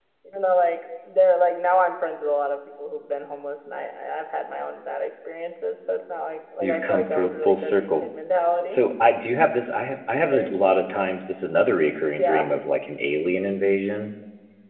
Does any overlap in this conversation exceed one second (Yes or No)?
Yes